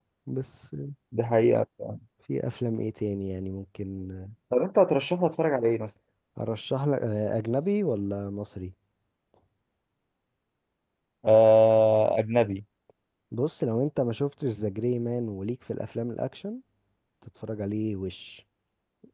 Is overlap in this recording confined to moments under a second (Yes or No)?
Yes